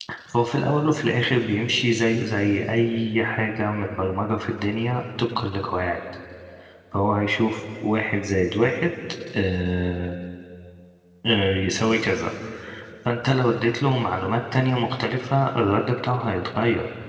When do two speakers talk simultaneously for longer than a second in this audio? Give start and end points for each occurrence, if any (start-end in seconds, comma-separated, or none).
none